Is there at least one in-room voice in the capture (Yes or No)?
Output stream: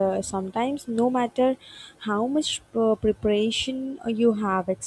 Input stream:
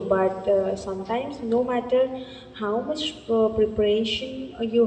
No